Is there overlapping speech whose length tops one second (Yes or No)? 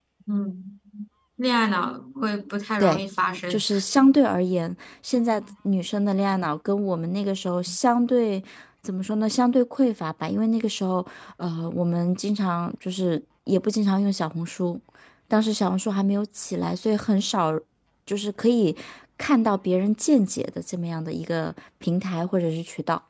No